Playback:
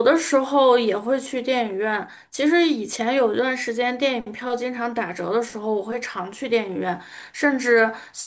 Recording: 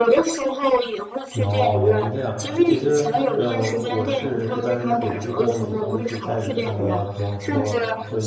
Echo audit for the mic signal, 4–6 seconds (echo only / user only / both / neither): both